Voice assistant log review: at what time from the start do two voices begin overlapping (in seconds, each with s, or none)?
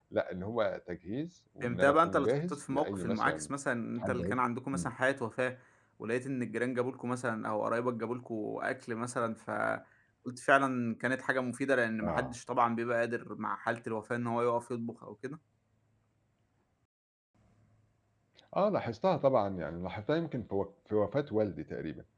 1.6 s